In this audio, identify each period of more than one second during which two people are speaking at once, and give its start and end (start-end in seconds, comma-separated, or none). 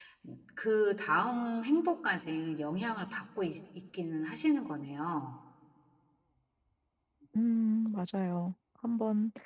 none